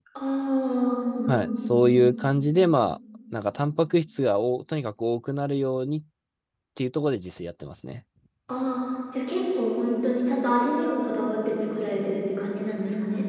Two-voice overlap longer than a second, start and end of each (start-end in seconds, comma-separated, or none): none